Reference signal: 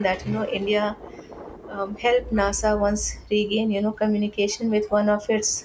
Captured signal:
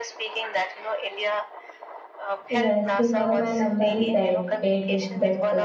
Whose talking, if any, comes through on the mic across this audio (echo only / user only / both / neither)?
both